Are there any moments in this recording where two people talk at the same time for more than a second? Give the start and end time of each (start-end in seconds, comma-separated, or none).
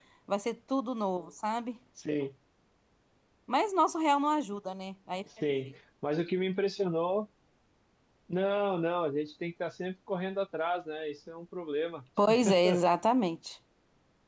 none